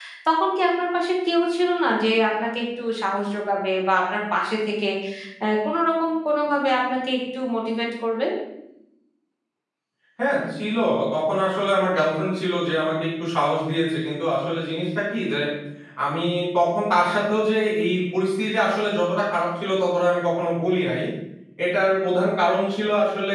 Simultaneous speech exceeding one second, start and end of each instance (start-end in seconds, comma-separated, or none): none